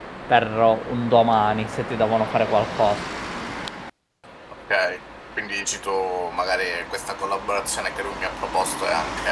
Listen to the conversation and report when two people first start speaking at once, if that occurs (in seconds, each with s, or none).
none